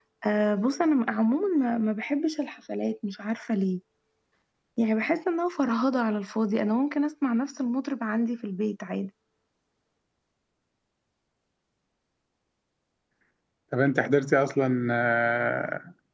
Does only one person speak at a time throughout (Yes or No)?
Yes